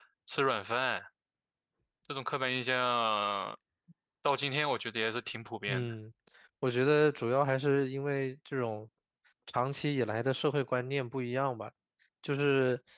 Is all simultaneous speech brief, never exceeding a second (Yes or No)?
Yes